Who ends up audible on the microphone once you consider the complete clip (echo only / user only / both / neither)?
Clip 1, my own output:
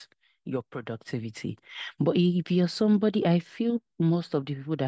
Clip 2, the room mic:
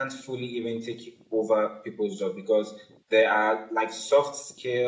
user only